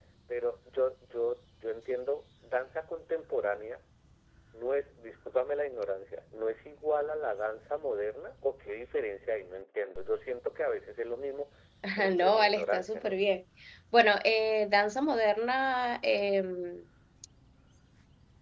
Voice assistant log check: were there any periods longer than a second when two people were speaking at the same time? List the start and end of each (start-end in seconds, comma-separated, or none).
12.0-13.2